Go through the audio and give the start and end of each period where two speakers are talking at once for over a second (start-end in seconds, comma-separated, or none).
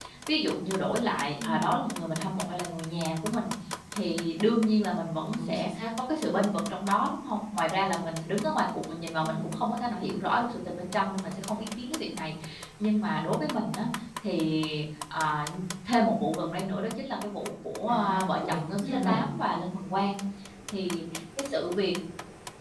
17.9-19.2